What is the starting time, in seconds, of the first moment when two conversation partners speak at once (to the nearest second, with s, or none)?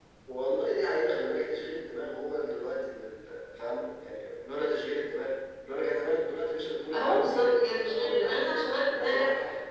7 s